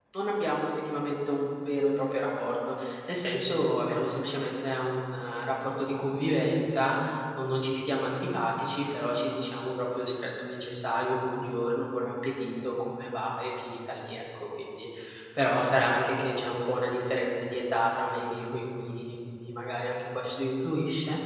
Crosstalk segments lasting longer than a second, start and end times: none

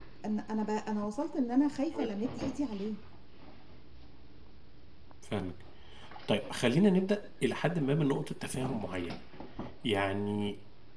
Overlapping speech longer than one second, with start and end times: none

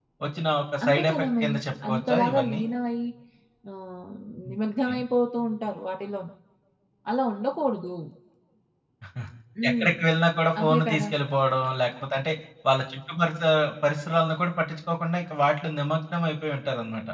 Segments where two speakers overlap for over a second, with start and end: 0.8-2.6

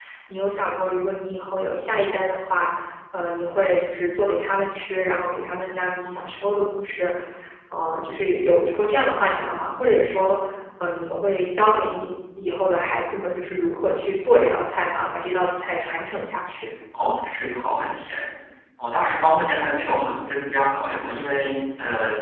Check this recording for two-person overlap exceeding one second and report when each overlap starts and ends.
none

